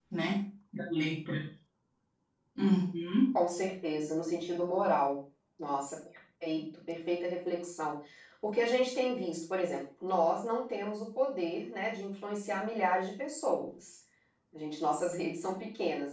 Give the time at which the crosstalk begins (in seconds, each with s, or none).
none